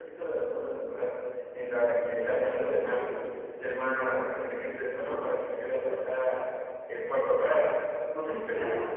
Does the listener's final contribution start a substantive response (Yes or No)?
Yes